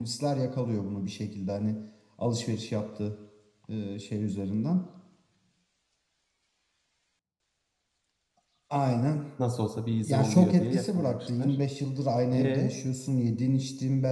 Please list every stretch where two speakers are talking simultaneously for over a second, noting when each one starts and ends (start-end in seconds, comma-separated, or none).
10.1-11.6